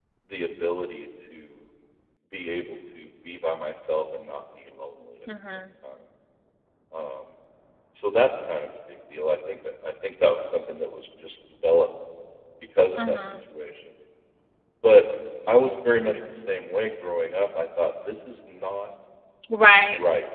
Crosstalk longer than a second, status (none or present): none